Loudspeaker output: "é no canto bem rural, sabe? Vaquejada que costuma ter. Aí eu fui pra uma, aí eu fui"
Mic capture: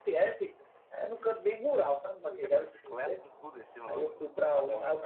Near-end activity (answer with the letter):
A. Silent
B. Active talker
B